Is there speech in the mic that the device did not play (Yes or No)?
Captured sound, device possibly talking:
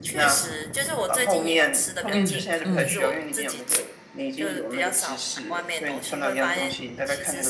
Yes